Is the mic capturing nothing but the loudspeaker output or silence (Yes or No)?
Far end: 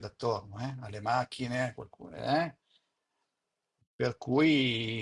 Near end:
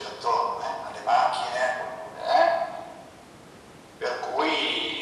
Yes